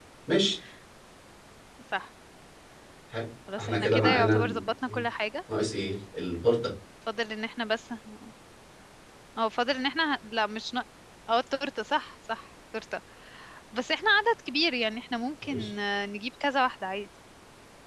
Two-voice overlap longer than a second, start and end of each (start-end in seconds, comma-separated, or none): 3.6-5.0